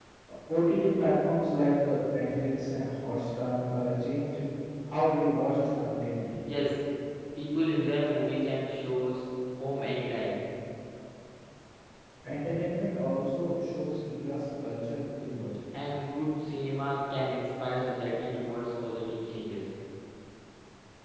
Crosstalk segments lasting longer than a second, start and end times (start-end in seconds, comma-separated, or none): none